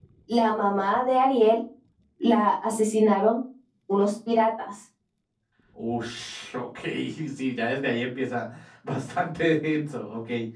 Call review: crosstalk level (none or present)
none